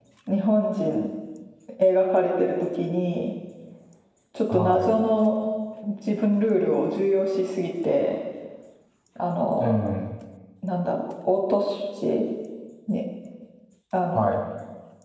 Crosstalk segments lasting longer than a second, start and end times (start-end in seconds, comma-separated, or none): none